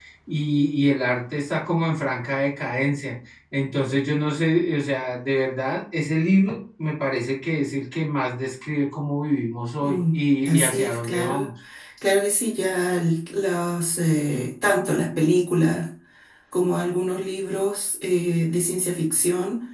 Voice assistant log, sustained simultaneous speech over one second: present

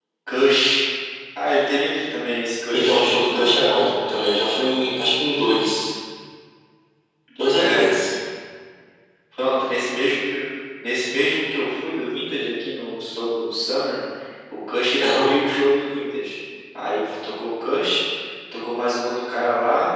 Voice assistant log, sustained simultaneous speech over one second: present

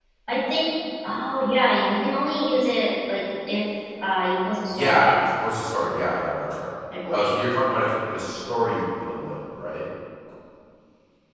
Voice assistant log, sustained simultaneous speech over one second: none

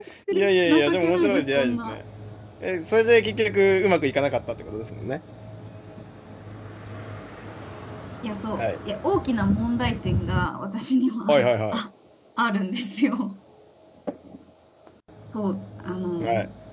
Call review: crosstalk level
present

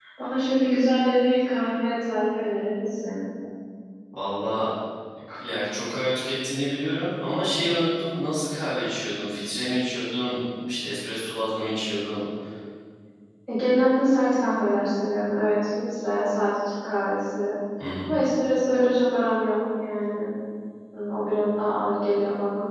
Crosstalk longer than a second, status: none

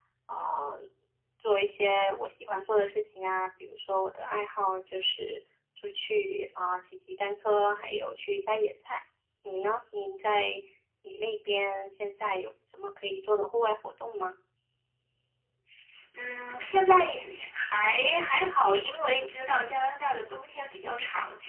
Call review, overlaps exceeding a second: none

